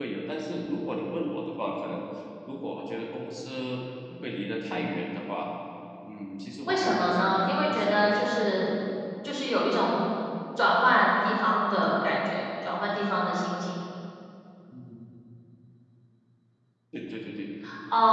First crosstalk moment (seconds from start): 6.7 s

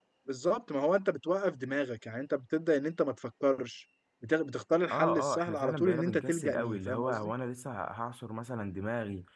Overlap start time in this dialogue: 4.9 s

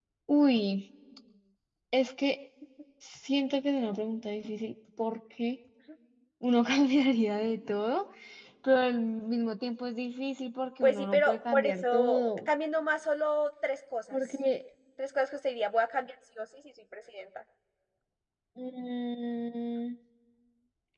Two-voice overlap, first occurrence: 10.8 s

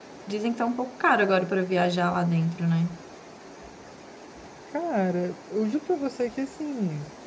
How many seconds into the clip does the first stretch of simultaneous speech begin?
none

